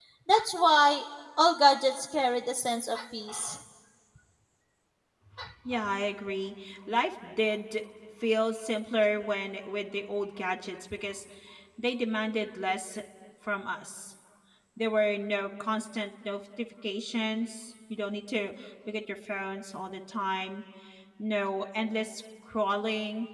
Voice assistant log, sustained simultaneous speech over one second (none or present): none